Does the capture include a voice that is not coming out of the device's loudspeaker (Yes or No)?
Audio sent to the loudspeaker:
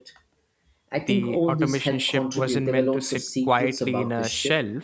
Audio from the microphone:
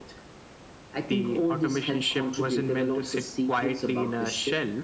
No